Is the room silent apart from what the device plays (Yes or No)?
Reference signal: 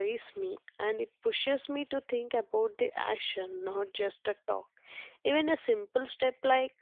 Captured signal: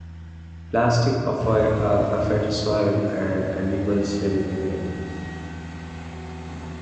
No